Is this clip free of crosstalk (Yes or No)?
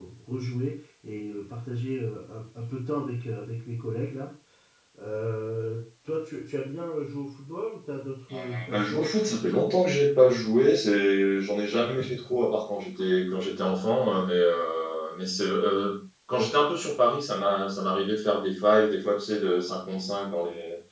No